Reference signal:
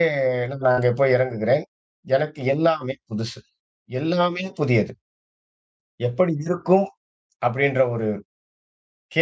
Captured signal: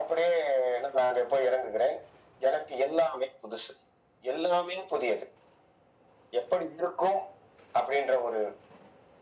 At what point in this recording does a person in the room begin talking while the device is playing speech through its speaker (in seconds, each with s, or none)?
none